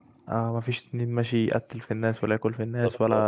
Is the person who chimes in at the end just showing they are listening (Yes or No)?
Yes